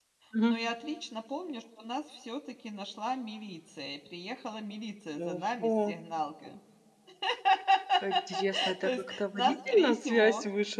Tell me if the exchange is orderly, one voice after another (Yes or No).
No